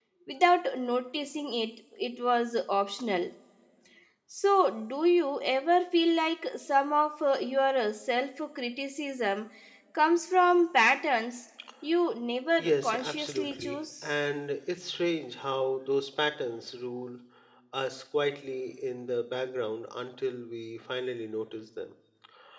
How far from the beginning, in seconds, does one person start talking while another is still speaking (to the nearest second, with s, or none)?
13 s